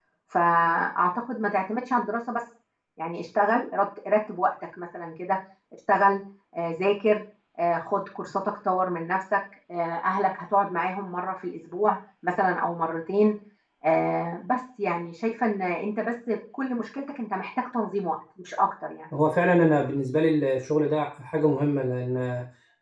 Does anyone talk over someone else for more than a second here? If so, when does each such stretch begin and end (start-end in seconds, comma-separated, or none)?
none